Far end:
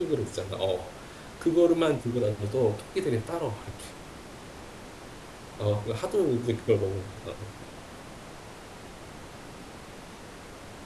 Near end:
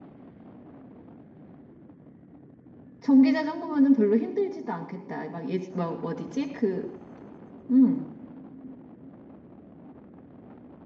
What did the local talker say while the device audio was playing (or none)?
전기 자전거면은 별로 힘들지도 않겠다. 막, 예, 막 어디지? 그, 음.